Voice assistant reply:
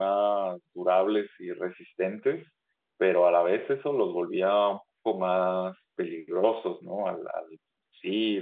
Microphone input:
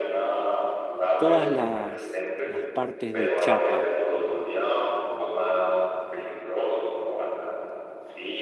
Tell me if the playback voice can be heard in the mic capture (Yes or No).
Yes